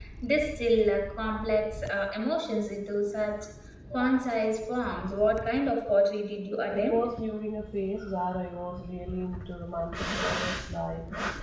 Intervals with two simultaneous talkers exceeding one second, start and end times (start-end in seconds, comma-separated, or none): none